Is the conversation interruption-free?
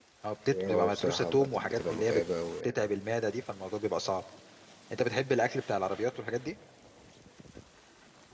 No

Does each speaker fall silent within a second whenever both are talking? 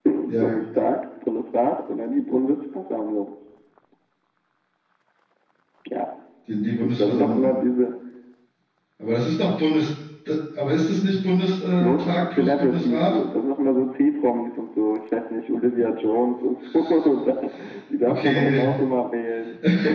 No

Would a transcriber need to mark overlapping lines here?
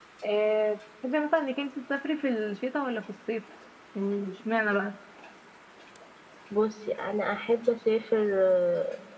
No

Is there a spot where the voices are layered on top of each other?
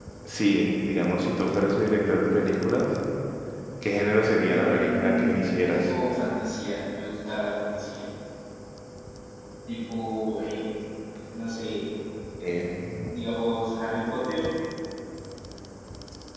Yes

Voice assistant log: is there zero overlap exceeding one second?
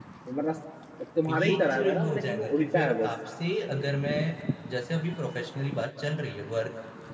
No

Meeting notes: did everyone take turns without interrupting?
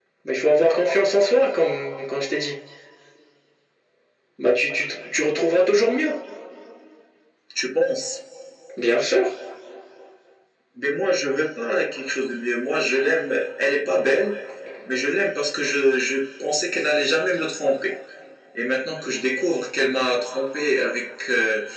Yes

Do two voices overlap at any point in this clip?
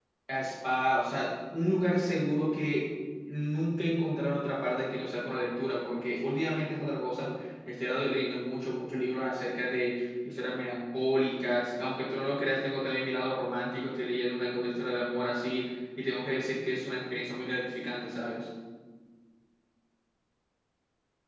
No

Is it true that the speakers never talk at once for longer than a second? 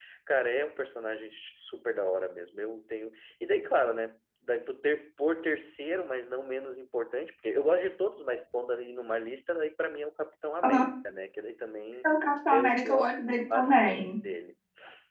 No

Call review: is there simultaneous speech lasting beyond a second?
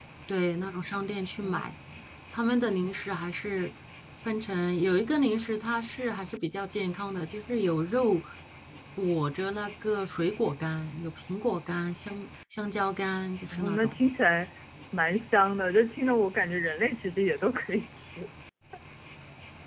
No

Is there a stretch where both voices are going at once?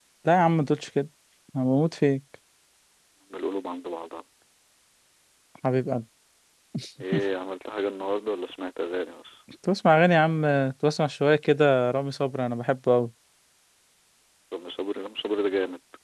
No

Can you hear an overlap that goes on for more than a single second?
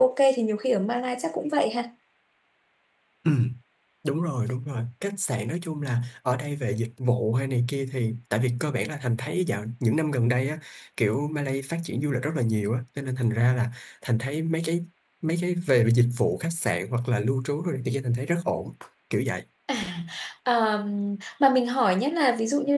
No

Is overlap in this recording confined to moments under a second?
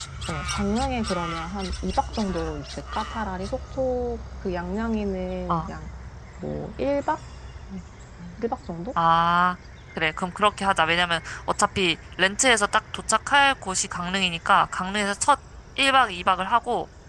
Yes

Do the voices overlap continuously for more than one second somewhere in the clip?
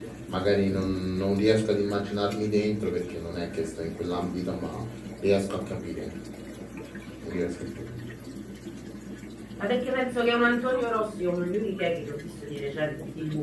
No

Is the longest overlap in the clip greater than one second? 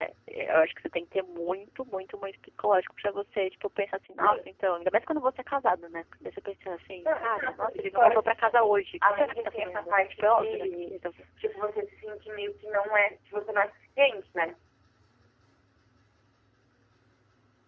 Yes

